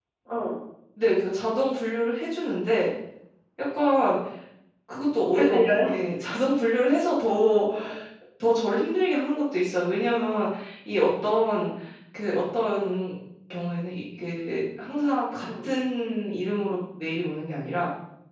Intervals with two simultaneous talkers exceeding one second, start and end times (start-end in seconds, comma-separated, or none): none